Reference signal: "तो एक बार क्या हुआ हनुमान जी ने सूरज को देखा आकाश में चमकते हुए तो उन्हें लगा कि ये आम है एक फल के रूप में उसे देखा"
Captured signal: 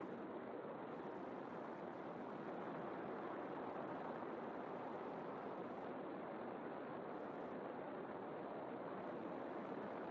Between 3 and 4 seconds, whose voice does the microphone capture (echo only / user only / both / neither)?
neither